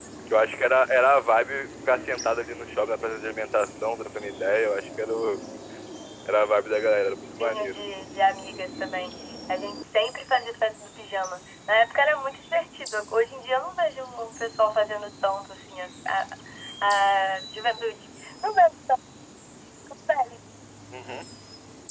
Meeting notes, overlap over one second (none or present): none